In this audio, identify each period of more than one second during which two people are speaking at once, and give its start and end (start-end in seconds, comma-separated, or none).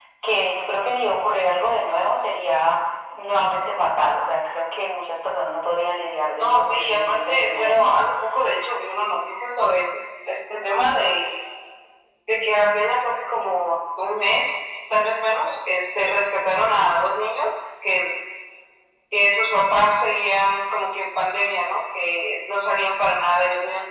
6.4-8.0